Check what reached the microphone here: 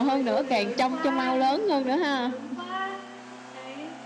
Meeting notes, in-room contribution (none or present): present